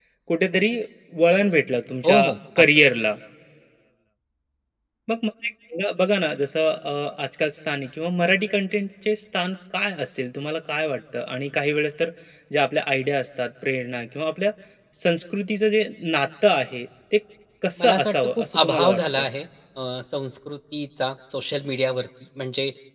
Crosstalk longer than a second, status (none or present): present